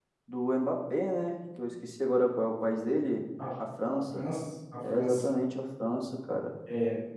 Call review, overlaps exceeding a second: none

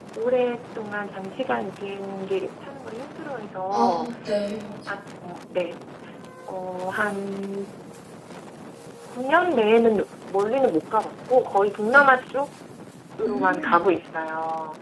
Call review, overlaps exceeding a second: none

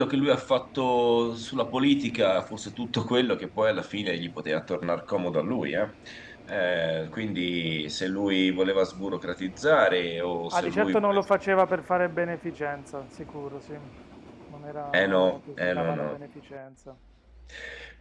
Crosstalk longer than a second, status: present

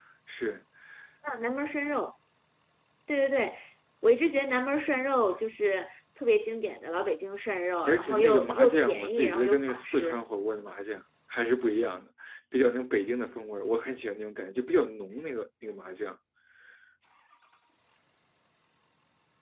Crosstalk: present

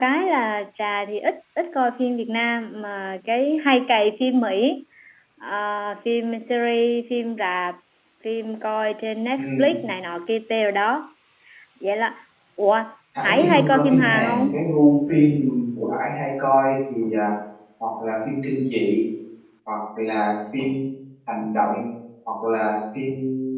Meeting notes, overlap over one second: present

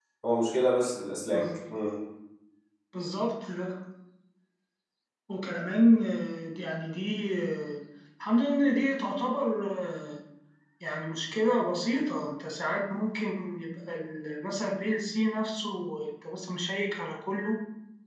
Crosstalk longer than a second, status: none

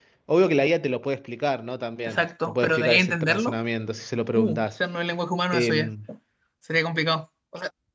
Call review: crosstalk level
present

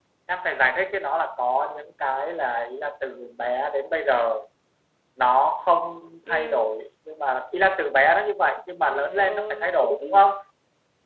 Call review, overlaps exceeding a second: present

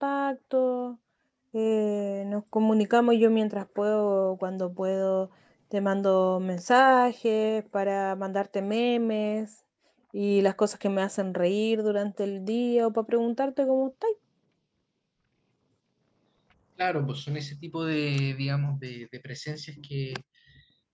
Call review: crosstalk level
none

